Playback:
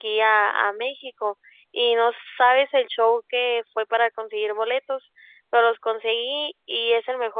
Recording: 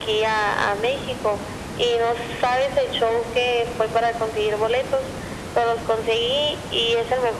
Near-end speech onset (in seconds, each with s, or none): none